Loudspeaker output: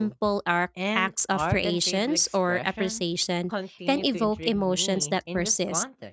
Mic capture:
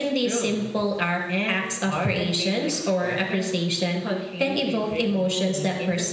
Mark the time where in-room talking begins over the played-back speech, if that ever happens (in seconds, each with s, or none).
none